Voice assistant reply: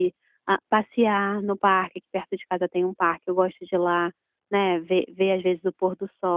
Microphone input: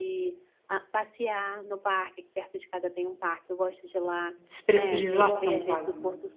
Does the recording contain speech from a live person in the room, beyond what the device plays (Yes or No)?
Yes